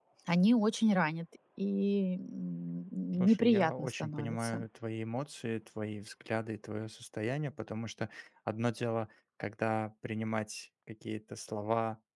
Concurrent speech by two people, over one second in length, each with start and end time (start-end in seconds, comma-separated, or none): 3.2-4.6